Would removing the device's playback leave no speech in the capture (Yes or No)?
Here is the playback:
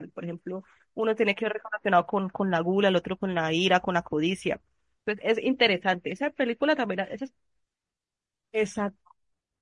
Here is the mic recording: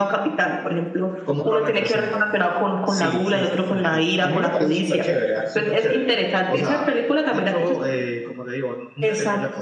No